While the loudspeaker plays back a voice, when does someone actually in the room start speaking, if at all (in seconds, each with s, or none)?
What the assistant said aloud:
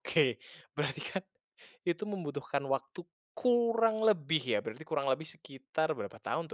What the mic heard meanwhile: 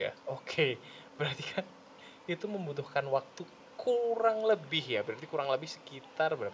none